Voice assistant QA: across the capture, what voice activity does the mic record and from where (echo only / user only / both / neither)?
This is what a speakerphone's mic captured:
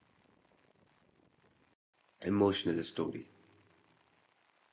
user only